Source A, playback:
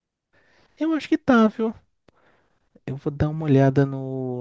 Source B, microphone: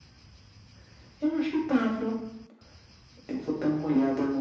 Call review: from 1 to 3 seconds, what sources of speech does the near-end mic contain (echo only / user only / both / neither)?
echo only